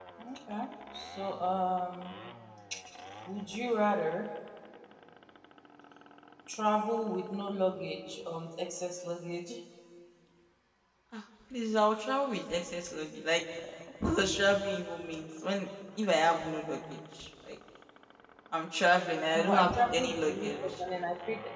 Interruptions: present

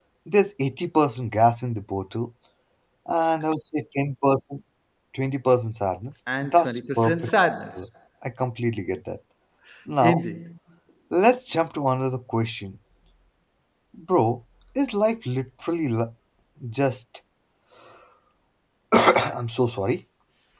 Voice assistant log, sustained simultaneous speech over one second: present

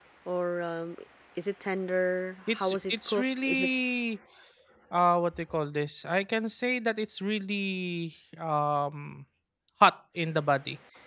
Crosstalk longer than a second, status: present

